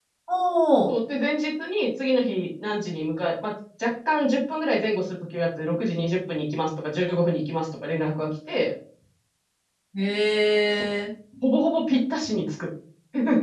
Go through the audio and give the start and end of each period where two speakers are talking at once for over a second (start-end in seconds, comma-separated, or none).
none